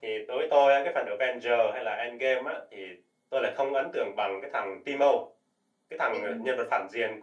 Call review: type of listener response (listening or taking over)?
listening